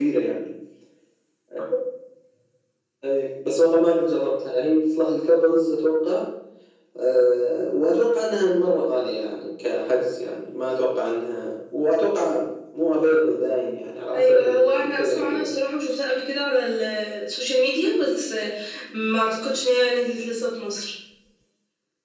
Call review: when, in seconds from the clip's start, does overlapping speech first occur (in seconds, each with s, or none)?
14.1 s